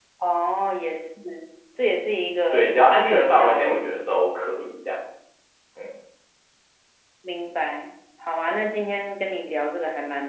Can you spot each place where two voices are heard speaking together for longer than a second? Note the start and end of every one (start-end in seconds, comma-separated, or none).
2.5-4.0